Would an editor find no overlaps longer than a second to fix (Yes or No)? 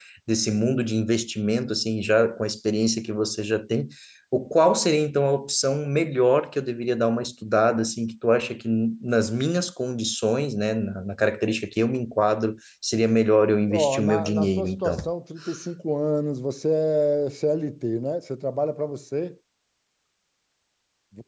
No